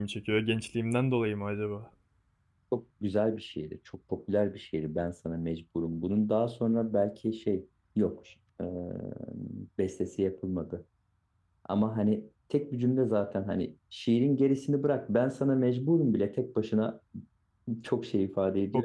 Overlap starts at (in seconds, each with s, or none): none